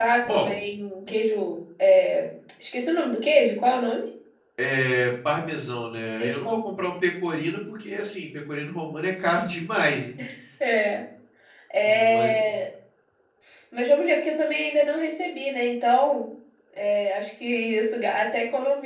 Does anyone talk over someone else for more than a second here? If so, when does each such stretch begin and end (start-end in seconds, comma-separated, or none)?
none